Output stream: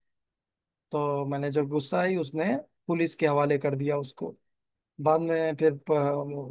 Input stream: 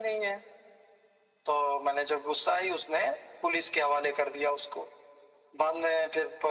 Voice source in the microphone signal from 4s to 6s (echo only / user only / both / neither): echo only